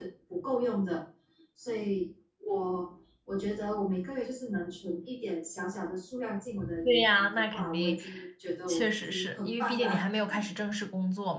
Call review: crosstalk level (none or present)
present